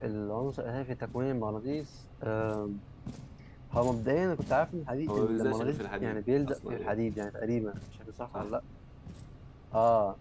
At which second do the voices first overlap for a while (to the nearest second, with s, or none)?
5 s